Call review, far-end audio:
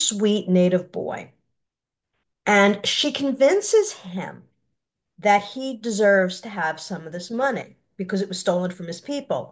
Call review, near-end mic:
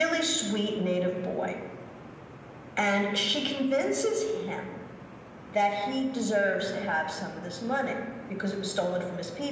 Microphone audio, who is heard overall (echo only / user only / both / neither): echo only